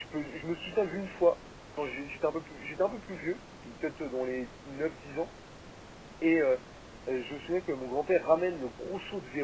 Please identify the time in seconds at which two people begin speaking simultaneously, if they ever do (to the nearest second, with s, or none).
none